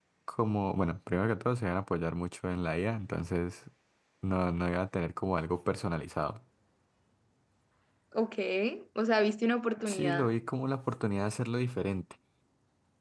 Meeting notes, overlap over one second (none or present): none